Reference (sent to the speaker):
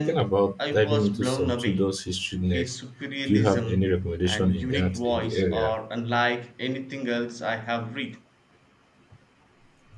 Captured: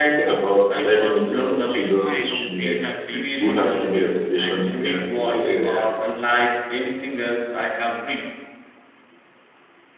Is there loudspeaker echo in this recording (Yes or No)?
Yes